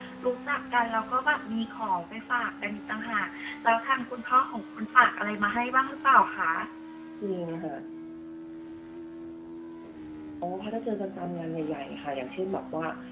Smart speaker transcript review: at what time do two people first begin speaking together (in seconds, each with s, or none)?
none